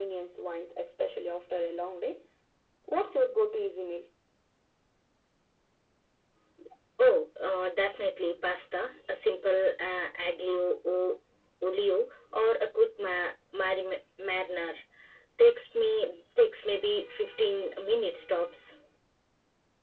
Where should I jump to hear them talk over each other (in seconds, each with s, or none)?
none